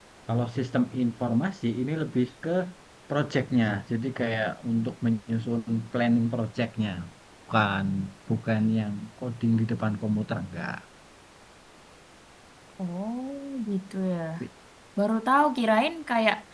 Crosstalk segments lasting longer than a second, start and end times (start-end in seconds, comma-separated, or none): none